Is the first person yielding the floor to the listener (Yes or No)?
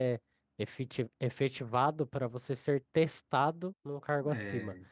No